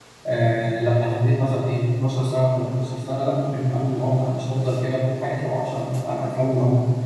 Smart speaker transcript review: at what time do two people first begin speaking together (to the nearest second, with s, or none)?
none